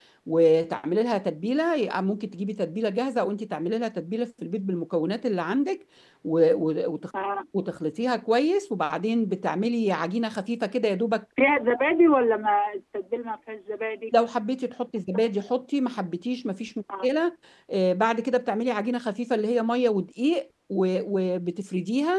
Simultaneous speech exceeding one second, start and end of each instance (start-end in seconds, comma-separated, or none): none